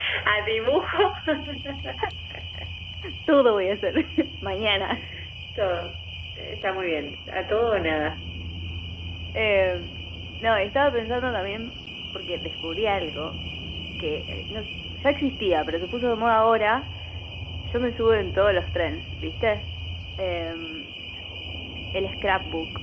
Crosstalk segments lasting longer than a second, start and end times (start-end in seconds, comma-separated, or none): none